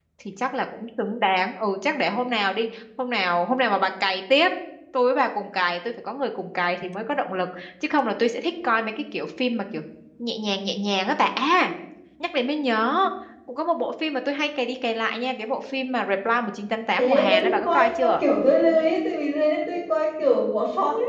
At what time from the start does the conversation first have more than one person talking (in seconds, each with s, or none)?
17.0 s